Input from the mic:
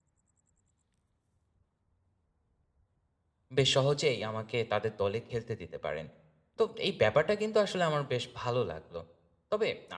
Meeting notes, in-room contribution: present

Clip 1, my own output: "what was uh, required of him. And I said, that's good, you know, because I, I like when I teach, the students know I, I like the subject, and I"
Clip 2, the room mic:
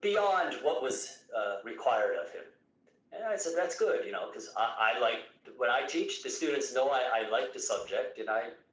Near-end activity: none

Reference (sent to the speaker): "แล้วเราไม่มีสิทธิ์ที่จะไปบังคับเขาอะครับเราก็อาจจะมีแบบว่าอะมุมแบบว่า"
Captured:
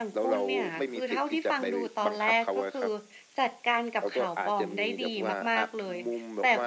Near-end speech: present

